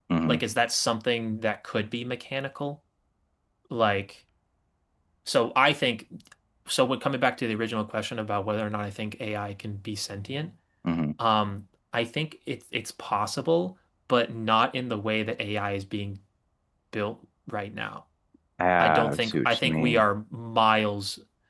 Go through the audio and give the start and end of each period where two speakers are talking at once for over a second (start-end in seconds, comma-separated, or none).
18.8-20.0